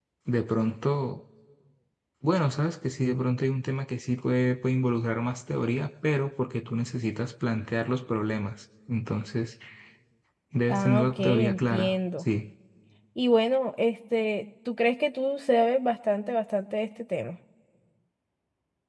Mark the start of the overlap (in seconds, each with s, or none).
10.7 s